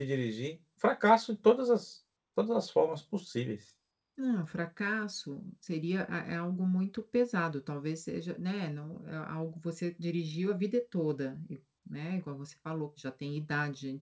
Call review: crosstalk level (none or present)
none